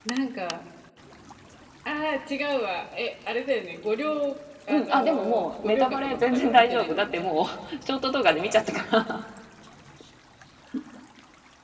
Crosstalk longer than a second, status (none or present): present